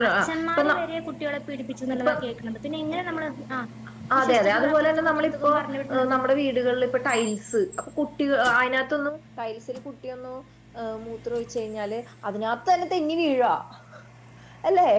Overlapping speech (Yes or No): Yes